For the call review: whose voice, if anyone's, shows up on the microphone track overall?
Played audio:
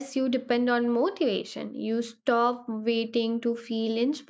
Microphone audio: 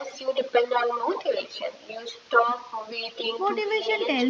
both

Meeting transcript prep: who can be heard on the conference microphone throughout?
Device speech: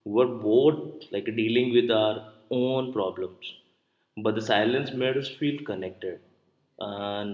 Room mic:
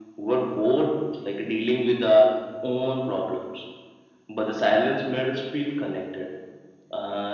echo only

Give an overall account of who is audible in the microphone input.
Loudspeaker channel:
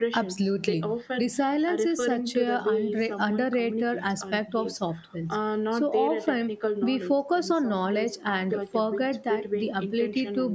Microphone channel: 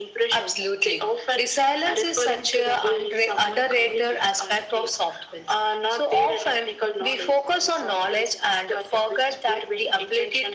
echo only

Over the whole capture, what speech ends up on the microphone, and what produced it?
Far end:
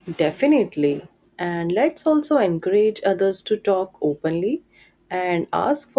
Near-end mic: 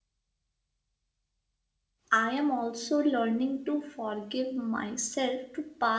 user only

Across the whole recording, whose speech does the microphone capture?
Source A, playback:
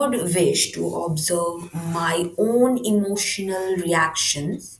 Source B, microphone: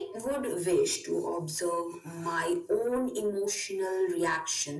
echo only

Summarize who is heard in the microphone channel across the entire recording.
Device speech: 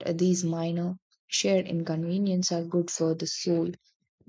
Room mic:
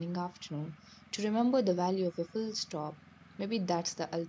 user only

